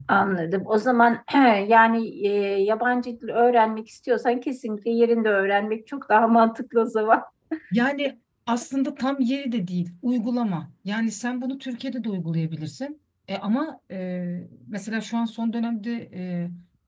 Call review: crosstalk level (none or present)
none